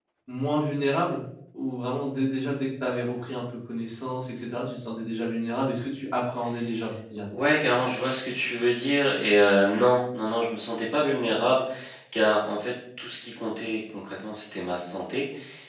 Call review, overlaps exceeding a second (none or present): none